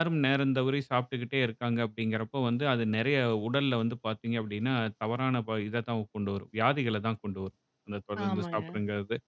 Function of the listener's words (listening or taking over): listening